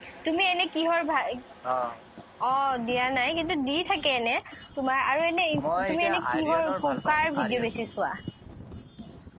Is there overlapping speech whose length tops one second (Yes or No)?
Yes